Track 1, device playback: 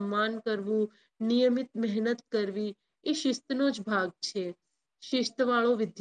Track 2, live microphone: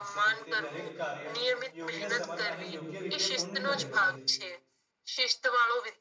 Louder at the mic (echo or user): echo